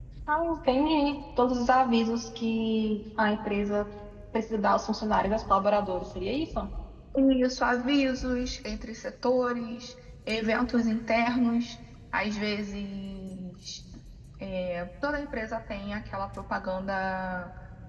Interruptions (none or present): none